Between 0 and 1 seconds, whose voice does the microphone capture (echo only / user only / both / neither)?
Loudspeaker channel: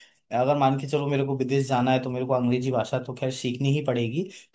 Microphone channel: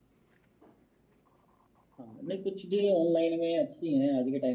neither